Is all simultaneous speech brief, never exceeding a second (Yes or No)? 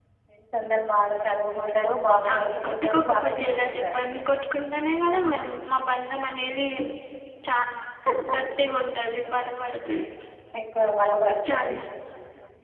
No